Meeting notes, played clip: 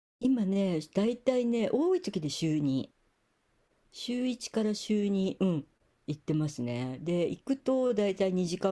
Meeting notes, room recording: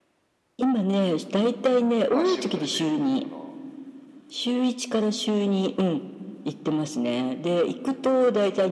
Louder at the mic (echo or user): echo